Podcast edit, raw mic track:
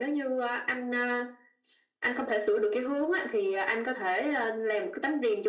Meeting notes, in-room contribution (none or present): none